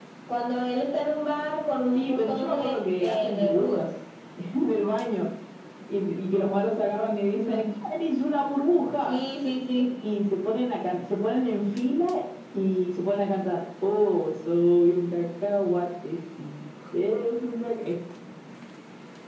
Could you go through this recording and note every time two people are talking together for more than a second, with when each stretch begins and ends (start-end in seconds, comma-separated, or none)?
1.9-3.9